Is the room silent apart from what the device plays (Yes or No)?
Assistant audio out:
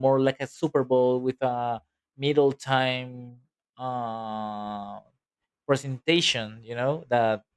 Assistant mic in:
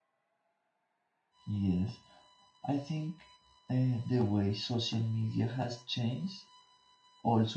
No